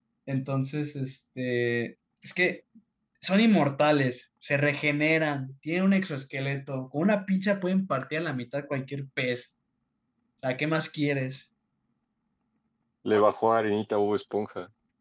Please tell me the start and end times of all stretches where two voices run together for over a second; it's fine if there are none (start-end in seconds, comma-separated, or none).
none